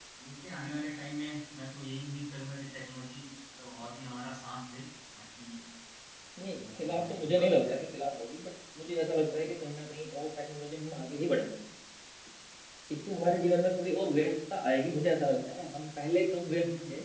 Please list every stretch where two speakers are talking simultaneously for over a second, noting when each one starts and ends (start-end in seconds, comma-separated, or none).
6.6-7.8